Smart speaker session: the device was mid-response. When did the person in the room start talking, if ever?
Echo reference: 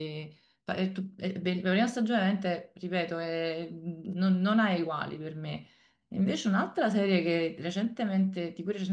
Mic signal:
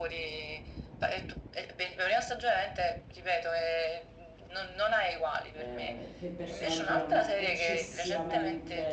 5.5 s

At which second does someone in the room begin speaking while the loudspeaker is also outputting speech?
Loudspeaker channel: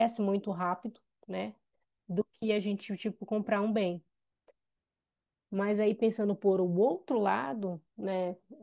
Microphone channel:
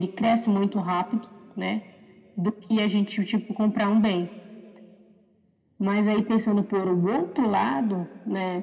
none

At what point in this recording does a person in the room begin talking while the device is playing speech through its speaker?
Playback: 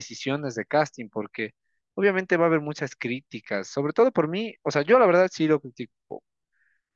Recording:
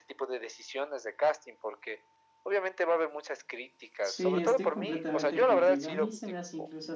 4.0 s

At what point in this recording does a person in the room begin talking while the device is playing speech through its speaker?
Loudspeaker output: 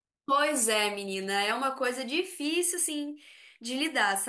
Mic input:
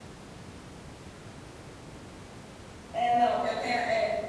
2.9 s

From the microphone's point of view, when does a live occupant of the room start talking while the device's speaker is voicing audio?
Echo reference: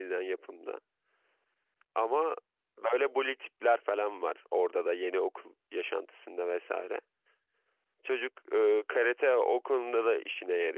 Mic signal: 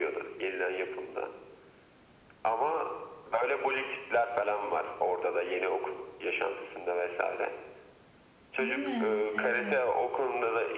8.6 s

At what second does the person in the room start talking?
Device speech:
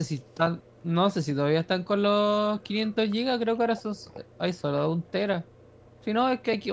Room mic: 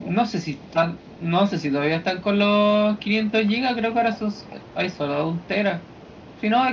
none

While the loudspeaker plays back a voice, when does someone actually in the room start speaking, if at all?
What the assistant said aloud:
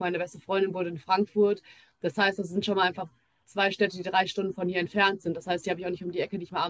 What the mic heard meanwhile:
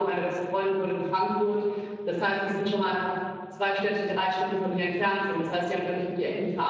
none

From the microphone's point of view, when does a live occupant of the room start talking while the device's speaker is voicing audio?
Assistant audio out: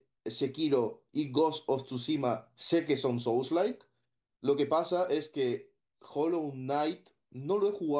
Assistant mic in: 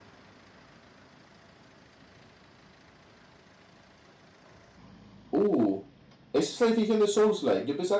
5.3 s

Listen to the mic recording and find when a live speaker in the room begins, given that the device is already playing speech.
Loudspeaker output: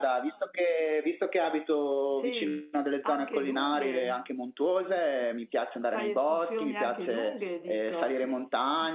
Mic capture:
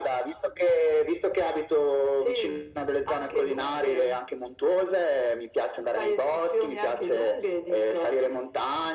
none

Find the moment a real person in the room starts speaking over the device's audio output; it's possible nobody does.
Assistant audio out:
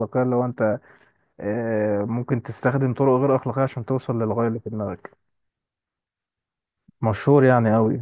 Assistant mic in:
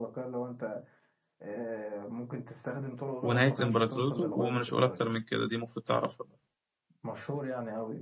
3.2 s

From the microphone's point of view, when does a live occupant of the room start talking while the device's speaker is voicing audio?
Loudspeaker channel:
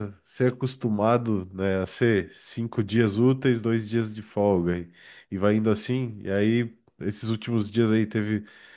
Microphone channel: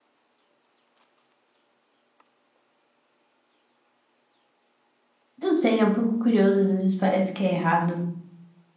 5.4 s

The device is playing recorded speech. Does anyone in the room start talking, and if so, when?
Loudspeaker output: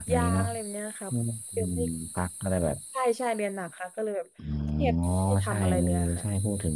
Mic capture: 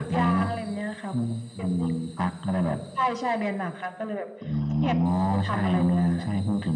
none

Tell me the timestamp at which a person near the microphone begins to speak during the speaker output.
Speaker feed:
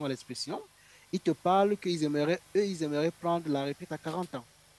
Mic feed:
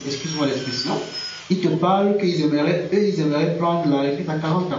none

